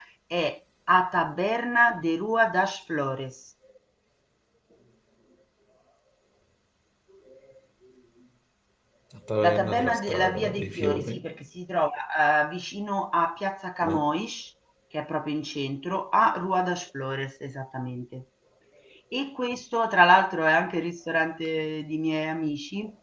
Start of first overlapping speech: 9 s

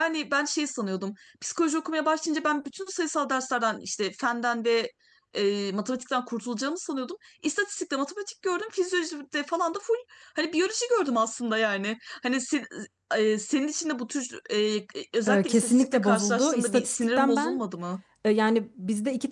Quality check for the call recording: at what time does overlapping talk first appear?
15 s

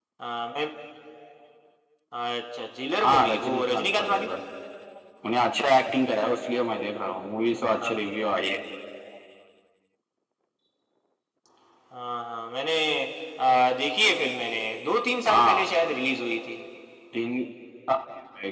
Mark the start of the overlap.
3 s

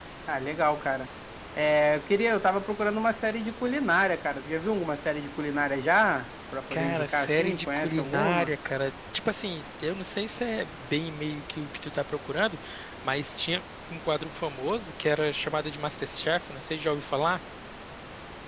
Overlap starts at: 7 s

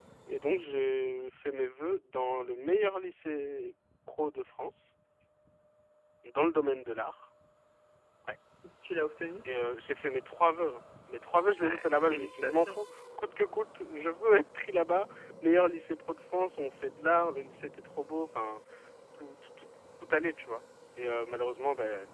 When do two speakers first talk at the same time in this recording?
12 s

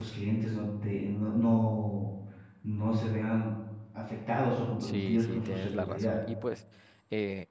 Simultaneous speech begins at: 5 s

